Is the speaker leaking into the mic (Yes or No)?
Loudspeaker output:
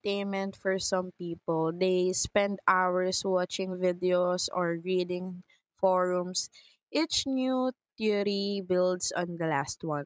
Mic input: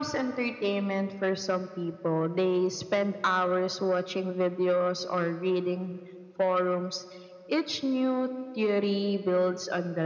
Yes